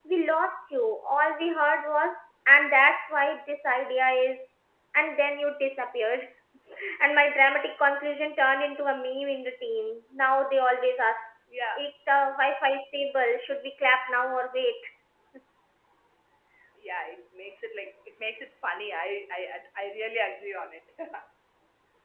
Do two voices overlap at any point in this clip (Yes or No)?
No